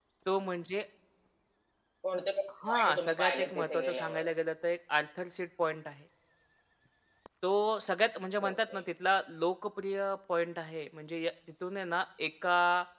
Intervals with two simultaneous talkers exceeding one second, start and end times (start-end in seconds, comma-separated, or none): 2.7-4.3